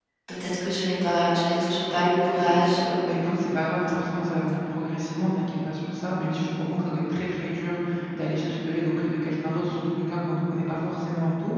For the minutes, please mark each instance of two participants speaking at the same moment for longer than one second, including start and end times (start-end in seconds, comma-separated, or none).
none